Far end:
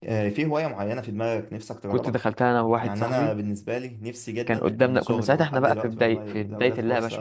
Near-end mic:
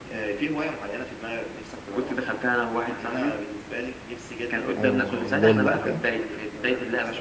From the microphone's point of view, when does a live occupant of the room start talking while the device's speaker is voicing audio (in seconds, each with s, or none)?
4.8 s